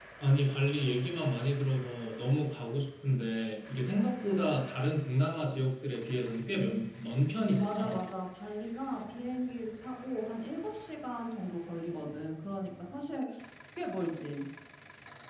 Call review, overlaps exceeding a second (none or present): none